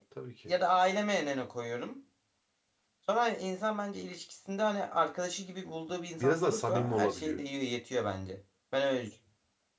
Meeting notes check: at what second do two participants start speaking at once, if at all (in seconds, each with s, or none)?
6.2 s